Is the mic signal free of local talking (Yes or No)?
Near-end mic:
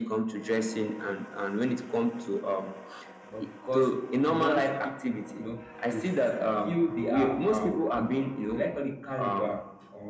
No